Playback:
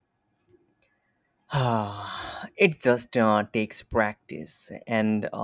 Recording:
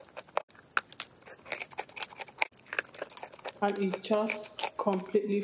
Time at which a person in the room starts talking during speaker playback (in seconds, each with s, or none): 3.6 s